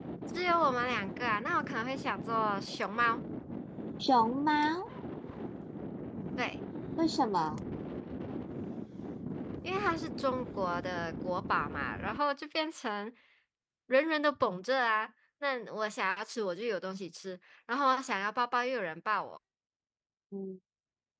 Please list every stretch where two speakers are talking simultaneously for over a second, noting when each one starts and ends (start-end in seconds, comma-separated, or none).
none